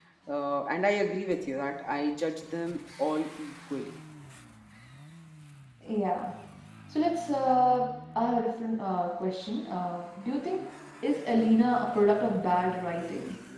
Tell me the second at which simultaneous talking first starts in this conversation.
none

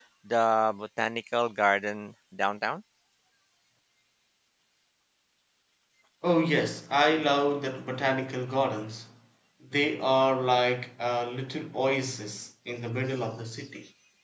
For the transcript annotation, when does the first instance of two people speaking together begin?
none

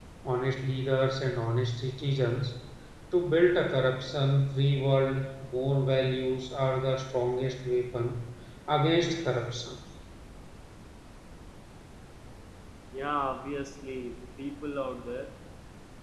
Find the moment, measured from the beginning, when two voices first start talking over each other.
none

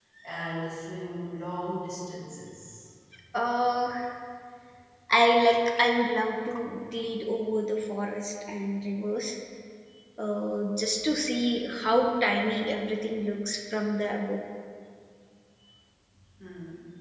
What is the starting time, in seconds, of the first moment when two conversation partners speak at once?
none

